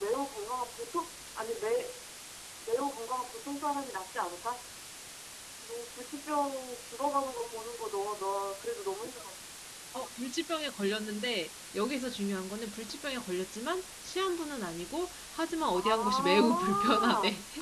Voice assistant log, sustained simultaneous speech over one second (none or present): present